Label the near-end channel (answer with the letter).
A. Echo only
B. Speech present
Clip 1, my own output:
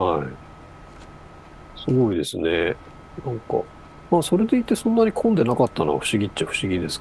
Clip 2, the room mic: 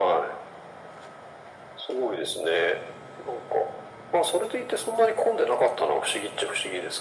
A